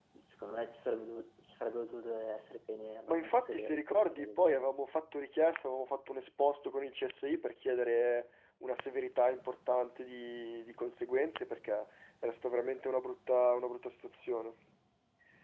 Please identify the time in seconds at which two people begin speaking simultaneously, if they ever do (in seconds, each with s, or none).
3.1 s